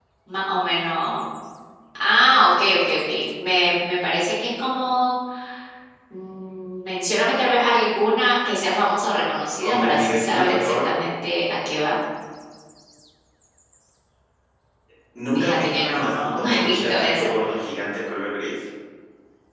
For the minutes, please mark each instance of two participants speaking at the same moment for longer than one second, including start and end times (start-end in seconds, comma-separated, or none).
9.6-10.9, 15.3-17.3